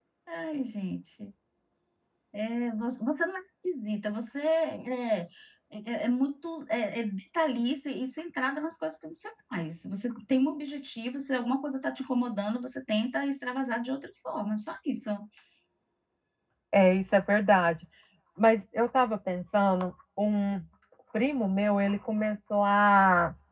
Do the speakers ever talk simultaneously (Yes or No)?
No